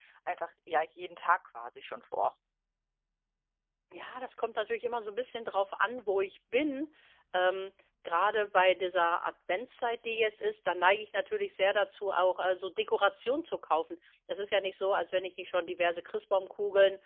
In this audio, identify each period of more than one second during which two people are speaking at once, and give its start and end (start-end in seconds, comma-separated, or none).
none